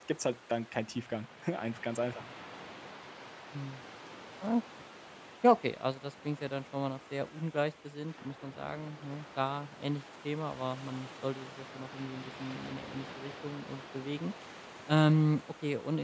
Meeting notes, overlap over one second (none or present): none